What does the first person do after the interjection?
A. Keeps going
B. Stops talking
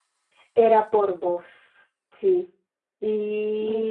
B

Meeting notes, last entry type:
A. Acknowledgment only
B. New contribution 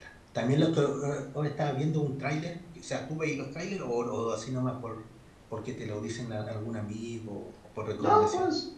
B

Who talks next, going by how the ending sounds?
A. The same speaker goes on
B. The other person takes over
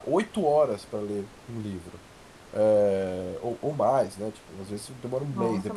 B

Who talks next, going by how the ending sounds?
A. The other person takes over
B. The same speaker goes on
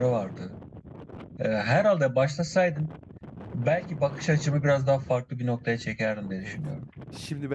A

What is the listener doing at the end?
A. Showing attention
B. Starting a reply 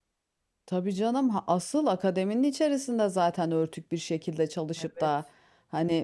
A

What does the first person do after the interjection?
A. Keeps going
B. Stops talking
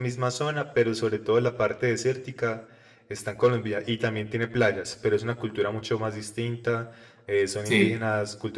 A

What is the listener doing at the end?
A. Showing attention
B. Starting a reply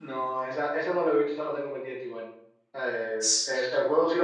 A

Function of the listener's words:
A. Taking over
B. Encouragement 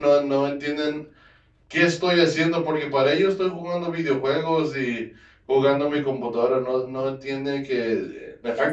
B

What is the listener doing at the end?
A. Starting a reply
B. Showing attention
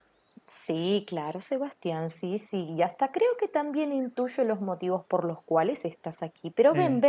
B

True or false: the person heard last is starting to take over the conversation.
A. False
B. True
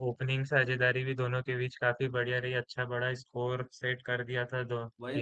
B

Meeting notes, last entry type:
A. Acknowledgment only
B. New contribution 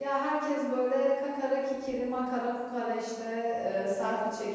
A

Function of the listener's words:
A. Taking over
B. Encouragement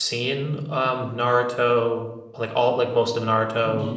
A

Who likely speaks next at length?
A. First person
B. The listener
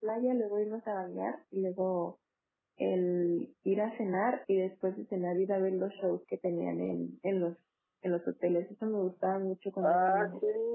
B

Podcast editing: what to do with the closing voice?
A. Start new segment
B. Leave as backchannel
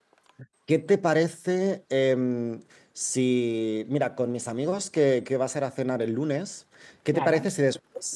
B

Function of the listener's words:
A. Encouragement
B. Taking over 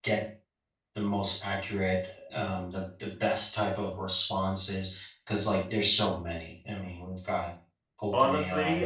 B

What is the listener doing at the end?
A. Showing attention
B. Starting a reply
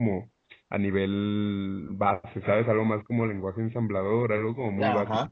B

